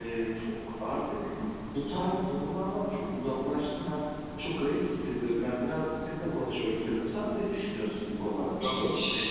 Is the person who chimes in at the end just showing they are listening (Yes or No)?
No